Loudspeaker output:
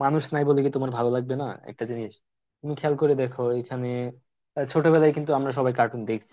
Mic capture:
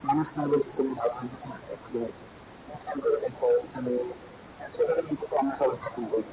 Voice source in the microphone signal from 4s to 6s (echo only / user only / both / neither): echo only